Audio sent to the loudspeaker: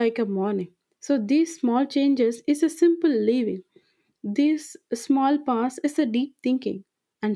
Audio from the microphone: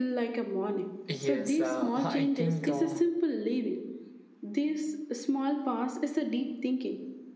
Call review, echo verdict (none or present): present